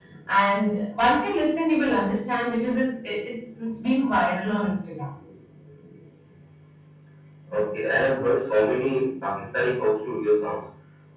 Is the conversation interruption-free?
Yes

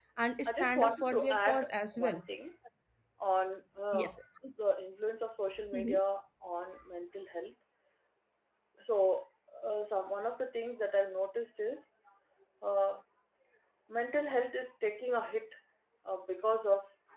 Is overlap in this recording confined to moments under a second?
No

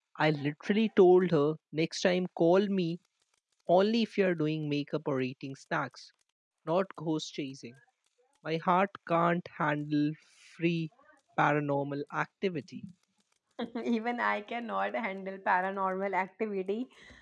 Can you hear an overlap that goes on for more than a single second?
No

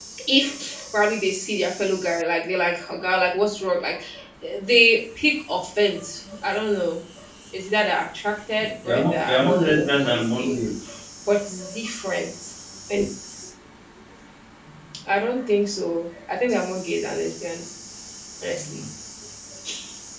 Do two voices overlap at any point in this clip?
Yes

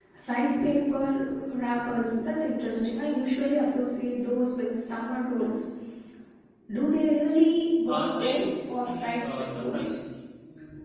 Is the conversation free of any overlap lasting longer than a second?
No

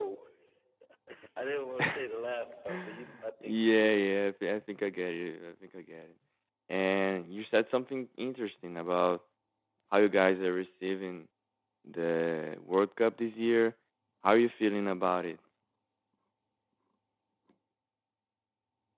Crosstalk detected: Yes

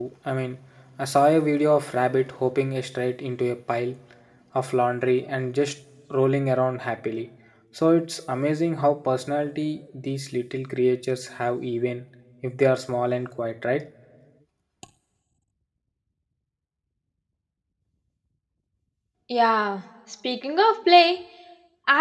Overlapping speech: No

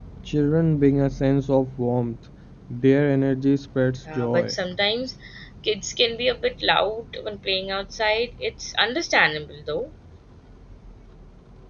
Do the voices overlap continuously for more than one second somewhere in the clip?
No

